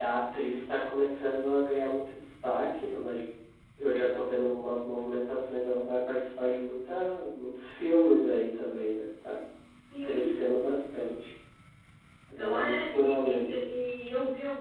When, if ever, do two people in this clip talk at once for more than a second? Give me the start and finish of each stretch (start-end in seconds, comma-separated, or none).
12.4-13.6